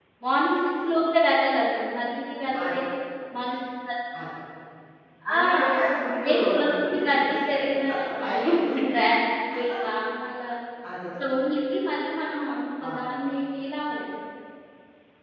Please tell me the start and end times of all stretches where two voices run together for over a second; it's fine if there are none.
6.2-7.8

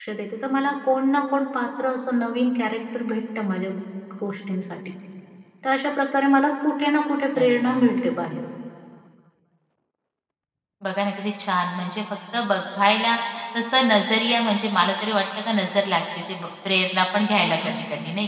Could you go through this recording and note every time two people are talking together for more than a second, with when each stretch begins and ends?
none

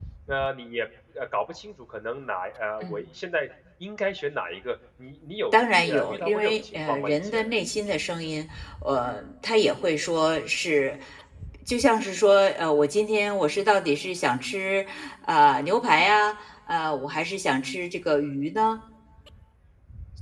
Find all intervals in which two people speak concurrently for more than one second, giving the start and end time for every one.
5.5-7.5

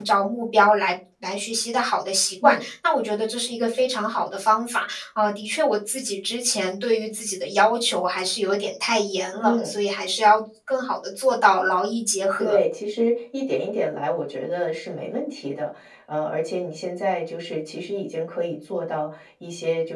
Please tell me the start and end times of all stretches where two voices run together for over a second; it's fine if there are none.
none

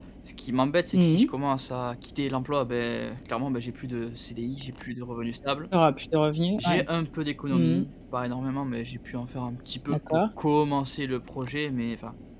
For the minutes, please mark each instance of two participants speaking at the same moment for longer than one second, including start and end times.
none

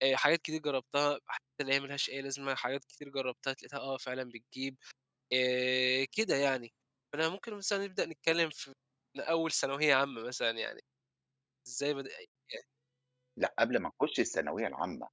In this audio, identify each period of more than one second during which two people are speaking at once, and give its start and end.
none

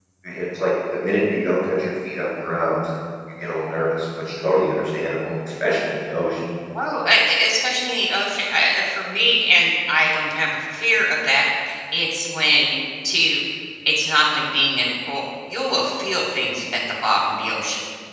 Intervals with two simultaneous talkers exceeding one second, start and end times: none

